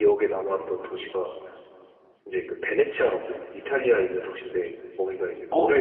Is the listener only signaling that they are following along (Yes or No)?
No